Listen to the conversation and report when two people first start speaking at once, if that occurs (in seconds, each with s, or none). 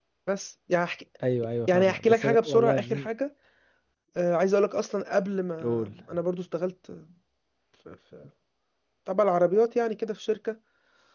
1.7 s